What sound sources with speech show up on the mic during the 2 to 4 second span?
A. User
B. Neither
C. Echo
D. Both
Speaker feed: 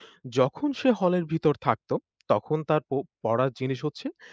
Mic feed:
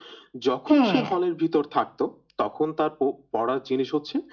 C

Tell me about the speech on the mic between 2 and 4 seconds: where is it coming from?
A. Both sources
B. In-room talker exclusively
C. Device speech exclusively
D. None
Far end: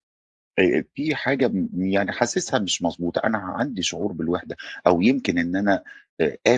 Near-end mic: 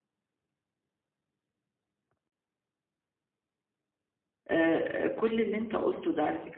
D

